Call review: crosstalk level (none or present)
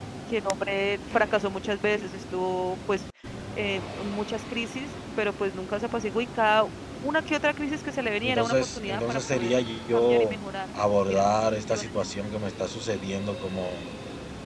present